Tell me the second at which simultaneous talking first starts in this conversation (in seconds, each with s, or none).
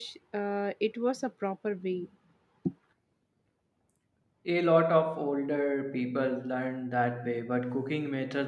none